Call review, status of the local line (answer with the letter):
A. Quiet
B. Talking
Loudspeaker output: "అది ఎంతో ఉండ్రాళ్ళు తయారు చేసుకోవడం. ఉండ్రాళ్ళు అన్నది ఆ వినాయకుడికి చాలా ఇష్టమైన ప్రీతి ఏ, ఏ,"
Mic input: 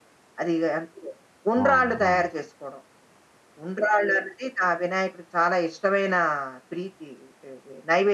B